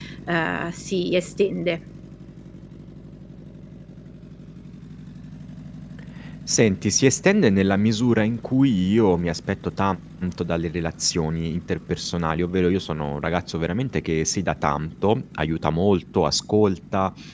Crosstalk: none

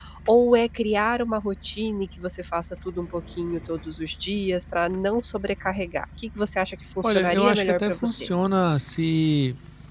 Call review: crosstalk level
present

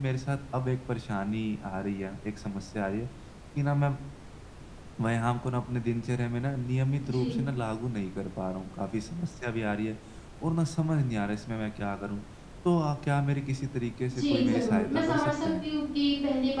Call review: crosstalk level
present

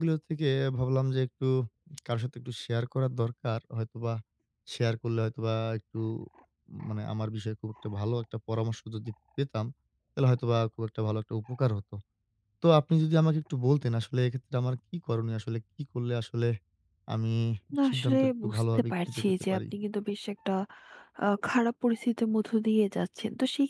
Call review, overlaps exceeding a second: present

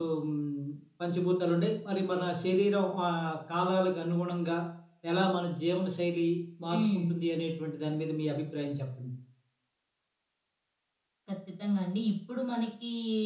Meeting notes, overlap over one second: none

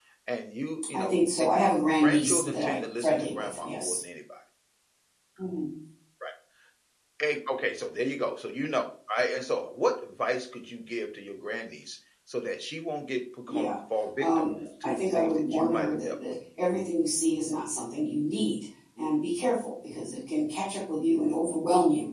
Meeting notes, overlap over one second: present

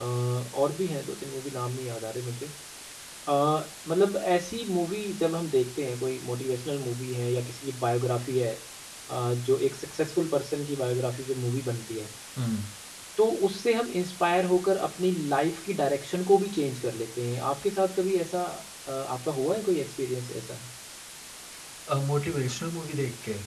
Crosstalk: none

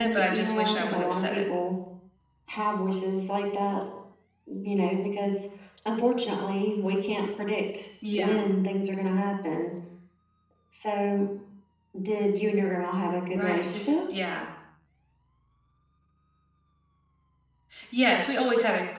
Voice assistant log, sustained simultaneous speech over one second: present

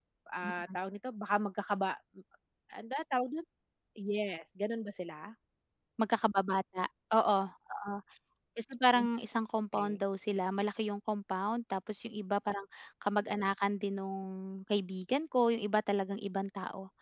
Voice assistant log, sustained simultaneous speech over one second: none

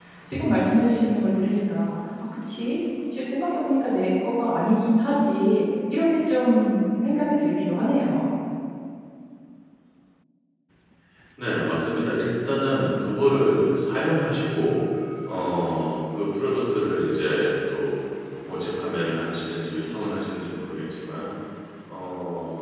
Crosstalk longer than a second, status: none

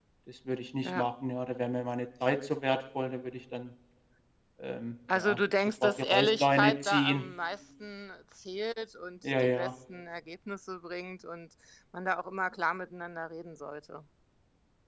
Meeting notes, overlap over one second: present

